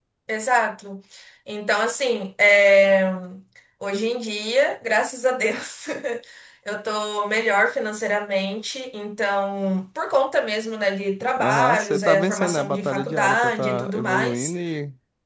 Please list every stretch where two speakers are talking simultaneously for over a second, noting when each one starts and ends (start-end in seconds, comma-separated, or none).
11.4-14.5